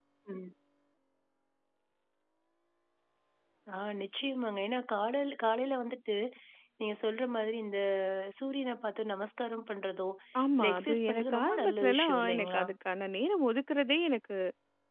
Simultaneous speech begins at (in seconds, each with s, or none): 10.6 s